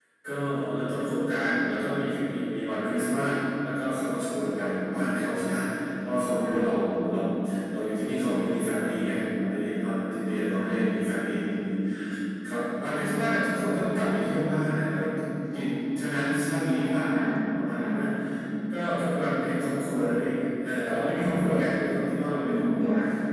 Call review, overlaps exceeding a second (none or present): none